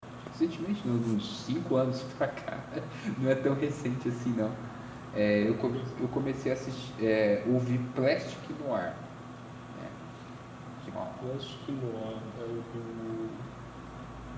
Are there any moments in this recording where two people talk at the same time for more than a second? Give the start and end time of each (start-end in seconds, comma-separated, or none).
none